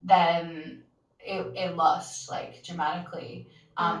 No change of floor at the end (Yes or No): Yes